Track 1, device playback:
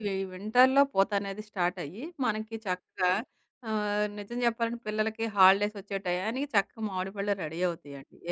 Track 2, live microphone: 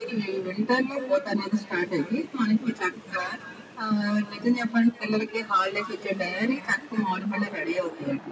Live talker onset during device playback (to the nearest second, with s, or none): none